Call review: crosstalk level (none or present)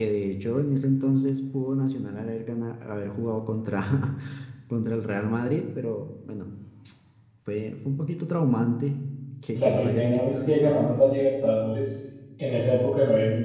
present